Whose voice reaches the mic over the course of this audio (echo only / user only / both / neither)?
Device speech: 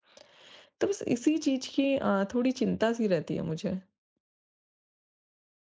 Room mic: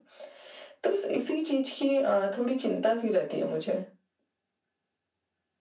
echo only